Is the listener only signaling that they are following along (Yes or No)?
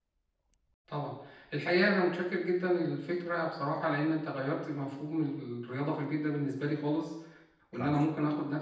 Yes